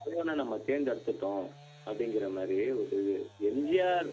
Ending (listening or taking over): listening